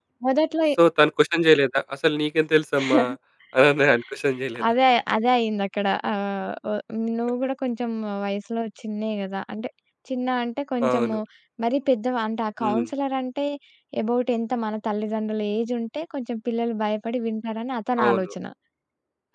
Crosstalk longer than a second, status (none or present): none